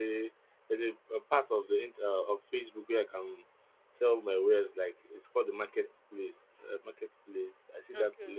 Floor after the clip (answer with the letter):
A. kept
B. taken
A